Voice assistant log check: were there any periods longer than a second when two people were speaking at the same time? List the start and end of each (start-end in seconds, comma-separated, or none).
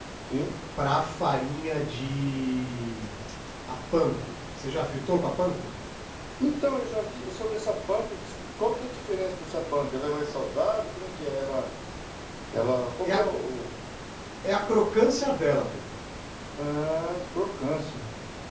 none